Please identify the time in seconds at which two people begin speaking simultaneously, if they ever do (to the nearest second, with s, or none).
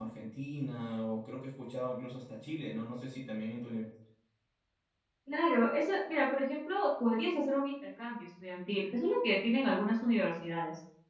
none